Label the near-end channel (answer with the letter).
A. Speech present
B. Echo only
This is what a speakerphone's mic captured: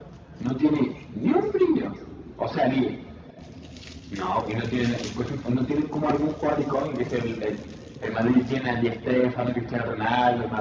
B